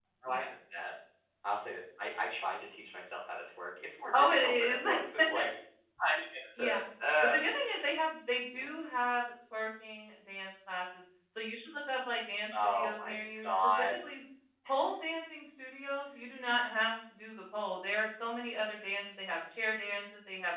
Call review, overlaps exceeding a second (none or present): present